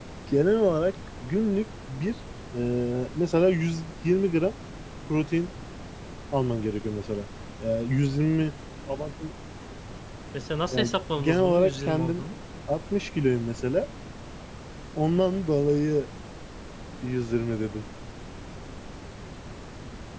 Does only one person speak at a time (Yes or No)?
No